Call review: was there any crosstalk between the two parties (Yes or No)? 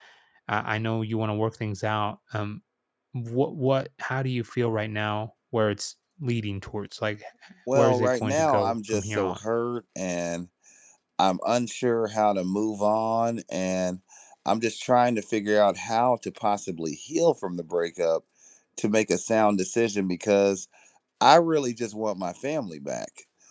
Yes